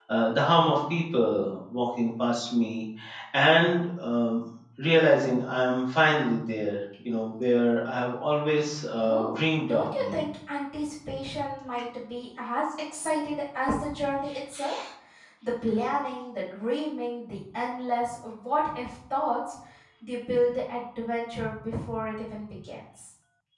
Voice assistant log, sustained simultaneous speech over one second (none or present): present